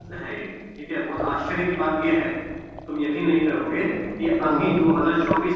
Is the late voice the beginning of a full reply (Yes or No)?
No